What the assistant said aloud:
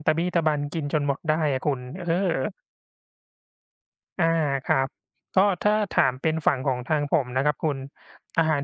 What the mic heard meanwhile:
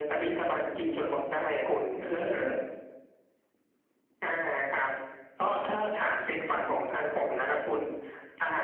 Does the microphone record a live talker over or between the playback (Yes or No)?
No